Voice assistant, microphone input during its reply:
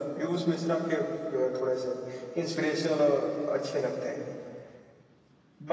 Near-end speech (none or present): none